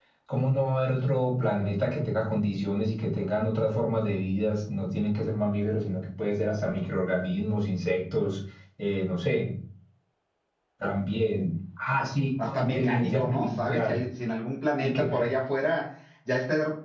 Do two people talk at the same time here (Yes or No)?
Yes